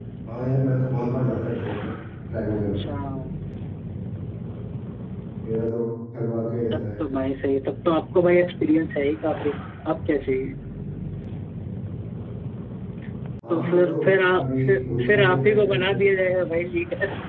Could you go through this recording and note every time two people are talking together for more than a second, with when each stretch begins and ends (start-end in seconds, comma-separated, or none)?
13.5-16.0